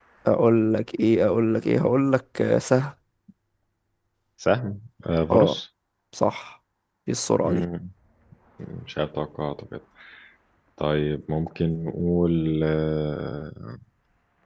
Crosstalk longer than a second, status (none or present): none